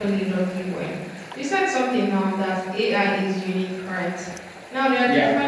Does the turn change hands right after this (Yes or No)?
No